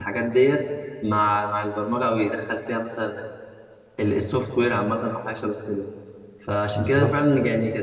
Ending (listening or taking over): listening